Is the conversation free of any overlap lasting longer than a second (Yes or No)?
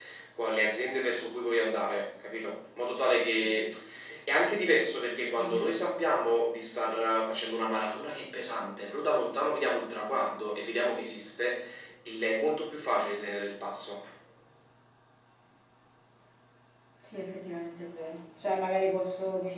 Yes